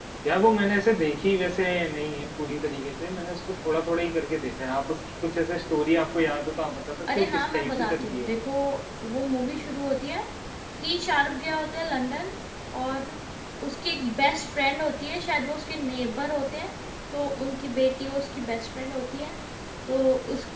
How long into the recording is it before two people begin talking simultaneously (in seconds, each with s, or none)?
7.1 s